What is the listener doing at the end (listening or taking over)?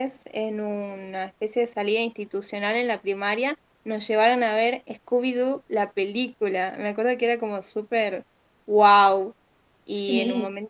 taking over